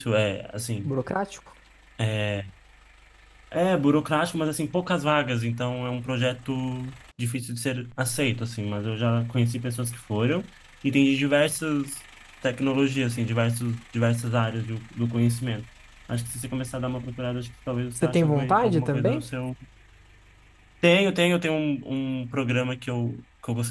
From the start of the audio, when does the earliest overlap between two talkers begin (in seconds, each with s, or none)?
17.9 s